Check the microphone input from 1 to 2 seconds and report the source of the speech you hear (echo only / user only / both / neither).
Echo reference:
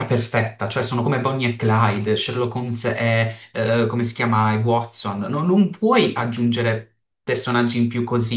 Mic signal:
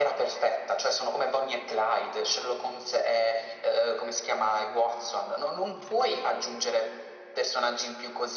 echo only